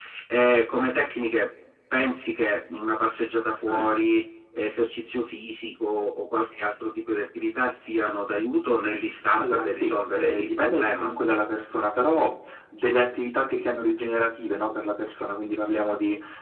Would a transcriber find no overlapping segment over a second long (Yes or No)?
No